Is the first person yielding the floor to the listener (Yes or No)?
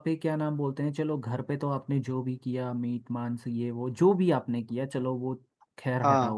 No